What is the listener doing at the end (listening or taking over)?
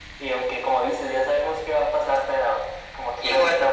listening